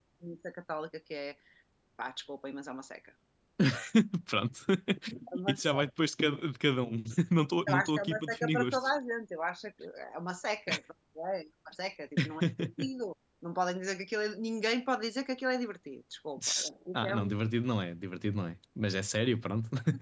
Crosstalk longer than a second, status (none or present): present